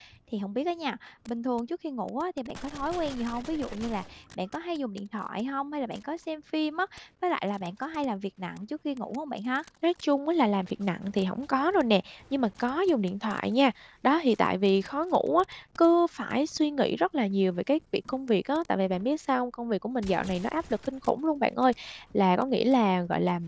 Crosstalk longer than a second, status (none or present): none